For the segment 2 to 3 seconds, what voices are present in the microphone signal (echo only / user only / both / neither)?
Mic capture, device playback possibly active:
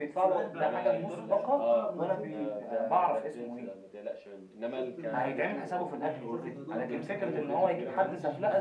both